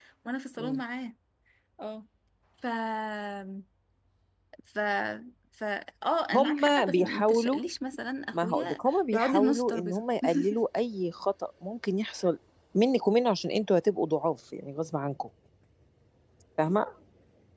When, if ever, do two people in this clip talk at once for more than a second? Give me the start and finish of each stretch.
6.3-7.6, 8.3-10.0

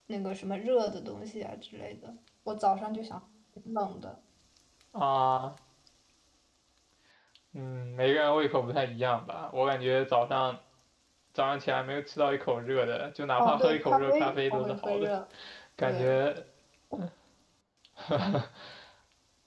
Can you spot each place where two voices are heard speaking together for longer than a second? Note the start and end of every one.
13.4-15.1

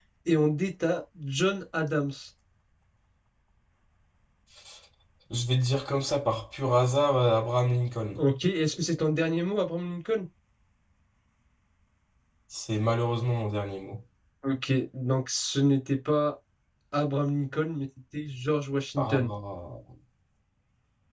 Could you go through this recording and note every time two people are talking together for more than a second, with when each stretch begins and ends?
none

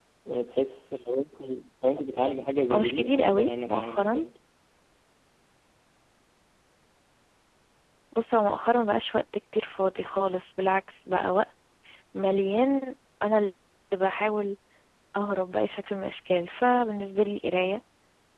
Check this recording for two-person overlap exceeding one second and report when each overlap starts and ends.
2.7-4.2

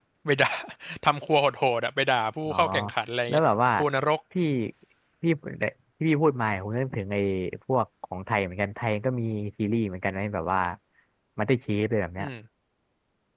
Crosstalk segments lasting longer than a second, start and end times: none

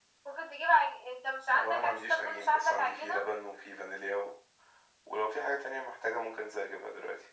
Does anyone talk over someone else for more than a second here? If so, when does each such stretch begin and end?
1.5-3.2

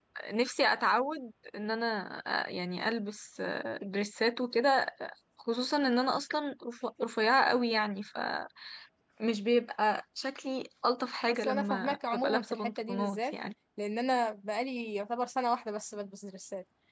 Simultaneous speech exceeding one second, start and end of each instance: 11.3-13.3

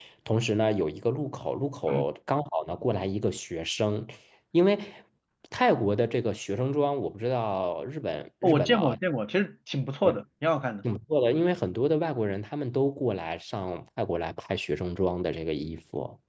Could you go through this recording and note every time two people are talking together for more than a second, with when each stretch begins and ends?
none

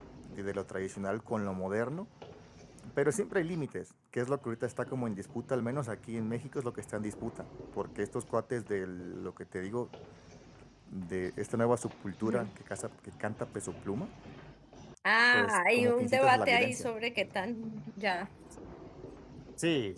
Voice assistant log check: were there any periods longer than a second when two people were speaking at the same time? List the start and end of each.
15.3-16.9

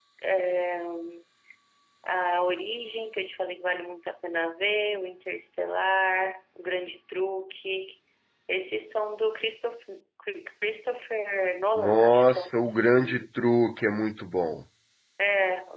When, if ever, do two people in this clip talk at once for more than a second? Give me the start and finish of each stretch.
11.8-13.3

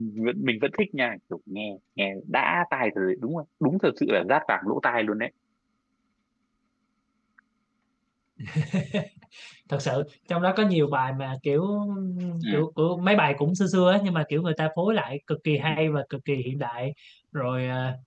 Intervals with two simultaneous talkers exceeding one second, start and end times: none

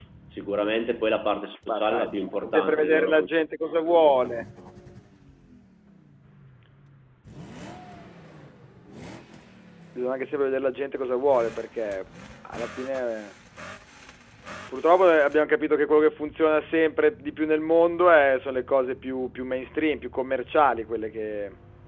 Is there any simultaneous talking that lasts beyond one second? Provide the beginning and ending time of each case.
1.7-3.3

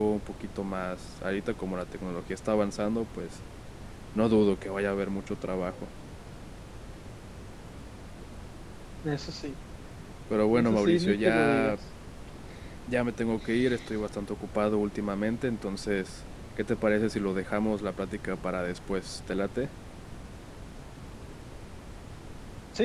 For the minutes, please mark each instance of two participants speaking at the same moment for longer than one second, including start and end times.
10.5-11.8

